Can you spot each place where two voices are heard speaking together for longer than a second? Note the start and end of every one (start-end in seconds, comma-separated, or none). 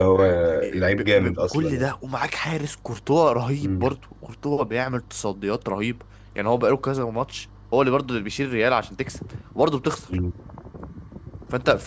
0.7-1.9